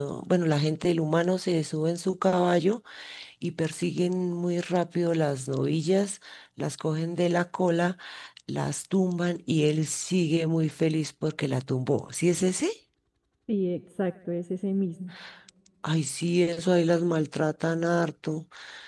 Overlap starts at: none

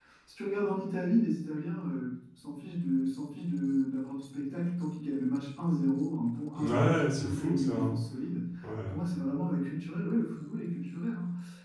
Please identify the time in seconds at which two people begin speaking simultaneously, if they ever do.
6.6 s

